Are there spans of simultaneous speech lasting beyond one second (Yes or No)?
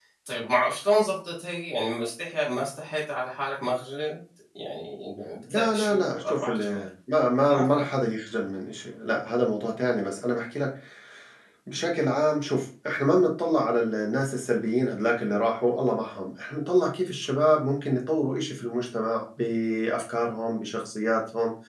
Yes